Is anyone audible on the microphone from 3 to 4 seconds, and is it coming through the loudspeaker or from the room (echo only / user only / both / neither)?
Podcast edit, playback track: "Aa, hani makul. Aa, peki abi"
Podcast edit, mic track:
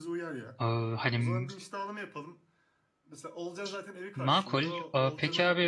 user only